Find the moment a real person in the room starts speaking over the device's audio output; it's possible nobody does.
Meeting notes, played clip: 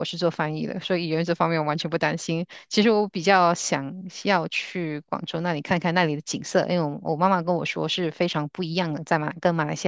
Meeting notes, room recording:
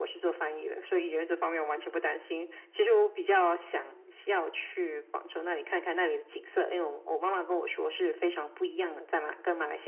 none

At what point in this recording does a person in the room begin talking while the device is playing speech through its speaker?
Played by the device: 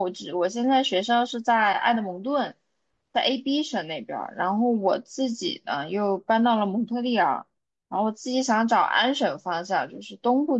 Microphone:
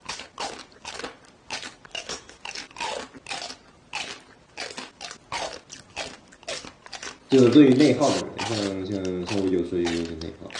7 s

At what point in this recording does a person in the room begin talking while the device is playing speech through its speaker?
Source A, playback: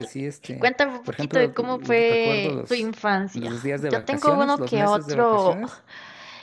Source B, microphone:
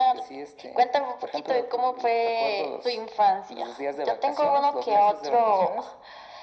none

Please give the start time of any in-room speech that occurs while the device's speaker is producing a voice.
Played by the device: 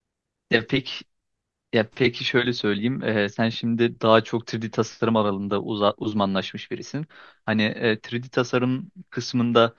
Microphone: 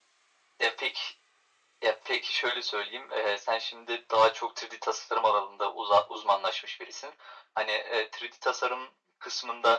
none

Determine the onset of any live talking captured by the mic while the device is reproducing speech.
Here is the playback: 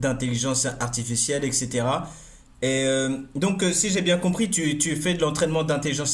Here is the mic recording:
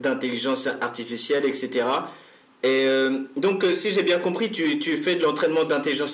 none

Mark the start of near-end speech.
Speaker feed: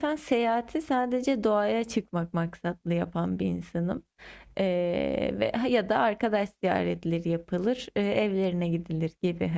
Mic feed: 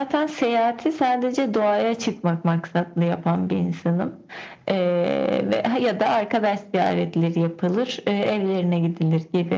none

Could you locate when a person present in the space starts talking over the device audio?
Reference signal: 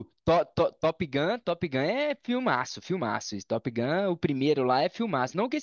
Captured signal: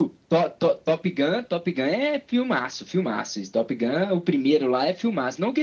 none

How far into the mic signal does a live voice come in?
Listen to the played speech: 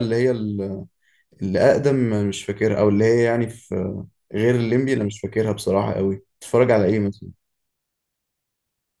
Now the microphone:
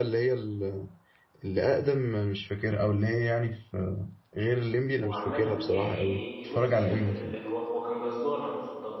5 s

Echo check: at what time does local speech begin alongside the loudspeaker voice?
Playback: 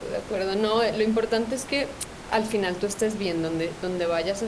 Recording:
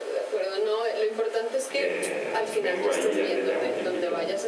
2 s

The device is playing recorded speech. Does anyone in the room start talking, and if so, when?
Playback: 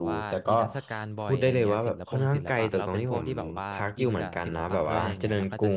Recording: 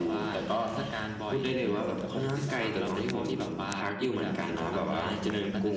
none

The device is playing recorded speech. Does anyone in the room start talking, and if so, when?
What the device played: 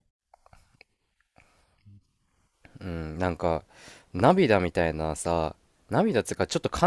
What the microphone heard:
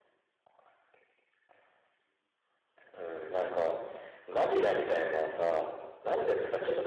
none

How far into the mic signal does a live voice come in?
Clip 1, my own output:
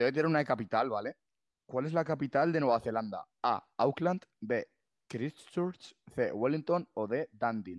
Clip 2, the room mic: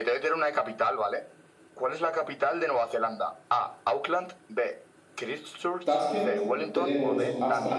6 s

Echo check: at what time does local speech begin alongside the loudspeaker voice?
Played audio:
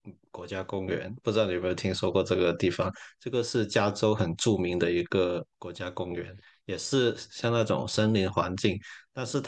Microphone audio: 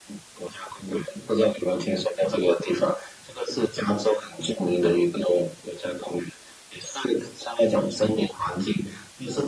none

